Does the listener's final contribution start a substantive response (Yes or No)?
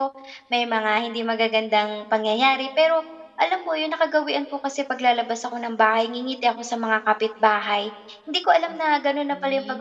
No